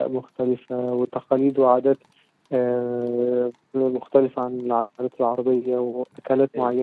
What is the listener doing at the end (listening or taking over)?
listening